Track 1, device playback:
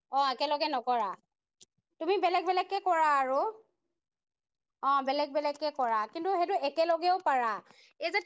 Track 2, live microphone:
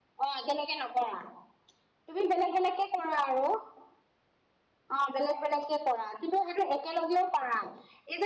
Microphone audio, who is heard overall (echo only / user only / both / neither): echo only